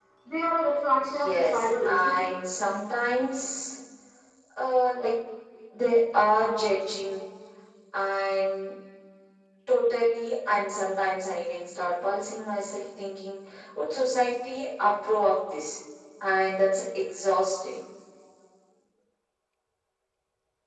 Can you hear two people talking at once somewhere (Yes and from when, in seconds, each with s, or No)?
Yes, from 1.0 s